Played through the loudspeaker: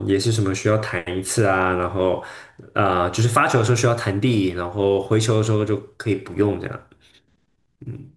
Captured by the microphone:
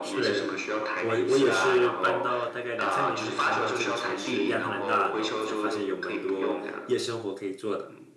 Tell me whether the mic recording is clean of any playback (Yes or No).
No